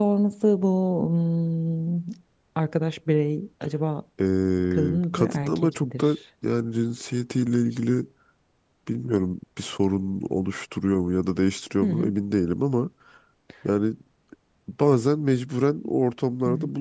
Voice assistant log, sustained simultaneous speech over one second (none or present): present